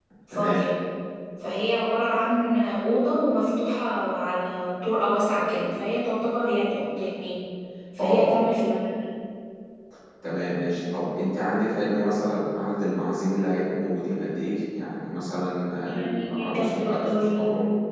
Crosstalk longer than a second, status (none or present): present